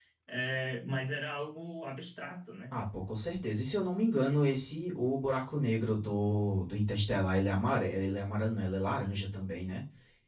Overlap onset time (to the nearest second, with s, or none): none